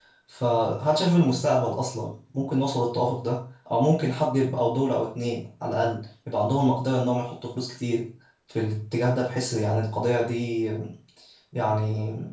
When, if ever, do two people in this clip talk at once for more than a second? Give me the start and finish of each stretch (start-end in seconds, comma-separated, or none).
none